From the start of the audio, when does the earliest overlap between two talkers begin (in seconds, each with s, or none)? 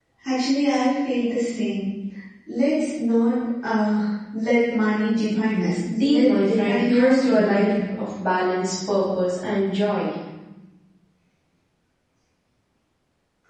5.8 s